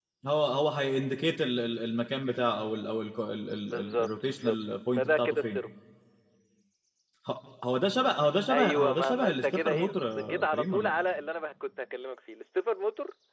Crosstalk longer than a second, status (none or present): present